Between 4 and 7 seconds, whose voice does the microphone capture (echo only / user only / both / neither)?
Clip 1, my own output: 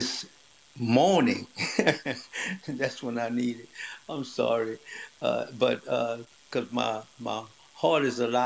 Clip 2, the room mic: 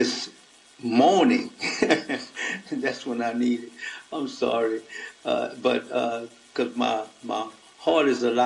echo only